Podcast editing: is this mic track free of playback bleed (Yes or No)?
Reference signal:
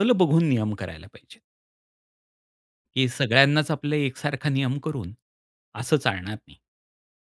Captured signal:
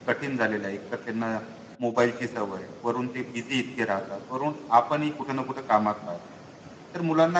Yes